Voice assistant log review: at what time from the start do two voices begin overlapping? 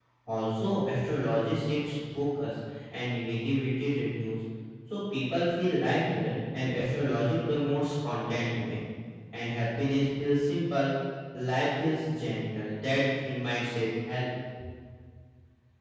none

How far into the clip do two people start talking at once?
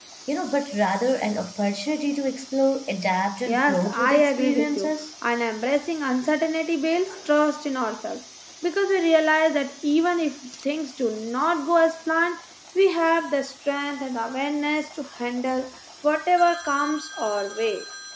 3.5 s

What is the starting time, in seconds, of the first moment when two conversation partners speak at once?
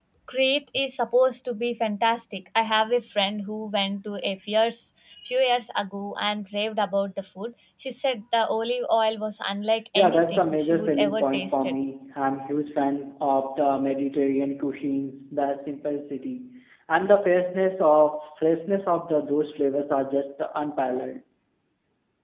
9.9 s

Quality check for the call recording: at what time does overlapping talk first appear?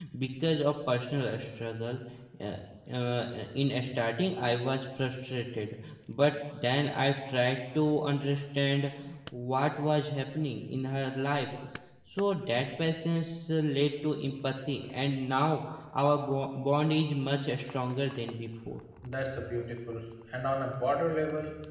none

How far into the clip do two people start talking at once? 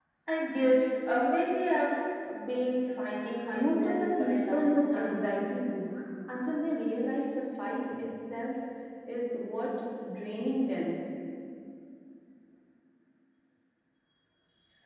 3.5 s

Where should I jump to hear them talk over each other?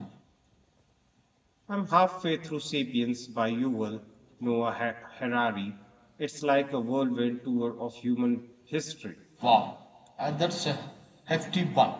none

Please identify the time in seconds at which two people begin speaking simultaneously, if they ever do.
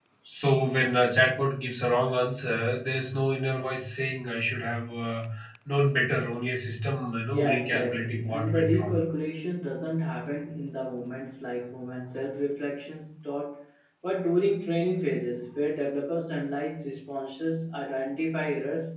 7.3 s

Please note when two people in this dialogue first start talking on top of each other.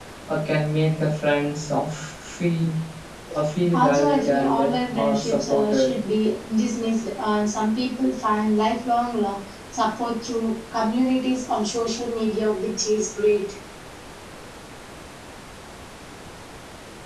3.7 s

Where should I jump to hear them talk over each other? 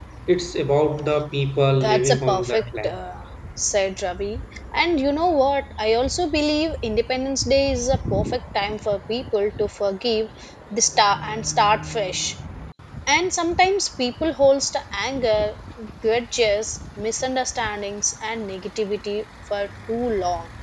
1.7 s

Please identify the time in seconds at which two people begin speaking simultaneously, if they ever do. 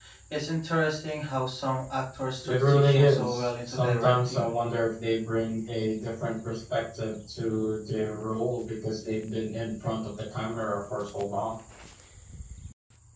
2.4 s

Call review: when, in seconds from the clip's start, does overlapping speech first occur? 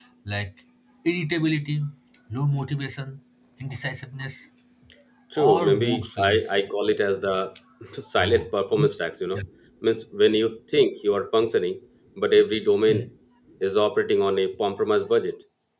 5.4 s

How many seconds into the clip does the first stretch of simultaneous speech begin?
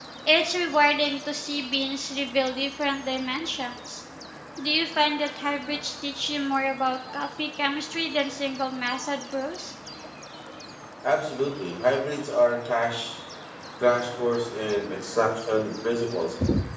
none

